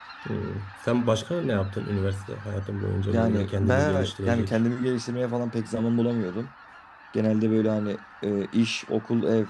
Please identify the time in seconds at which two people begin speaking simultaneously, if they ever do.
3.1 s

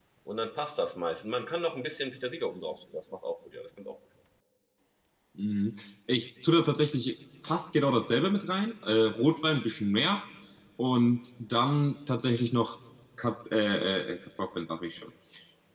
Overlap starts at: none

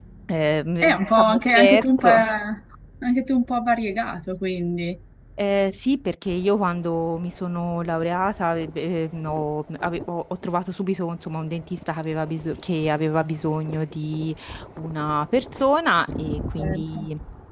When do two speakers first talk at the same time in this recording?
0.8 s

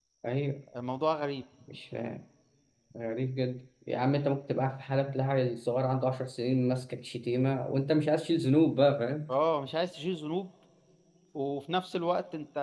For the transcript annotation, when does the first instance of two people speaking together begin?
none

